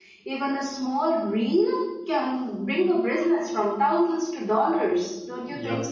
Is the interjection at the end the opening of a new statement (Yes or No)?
Yes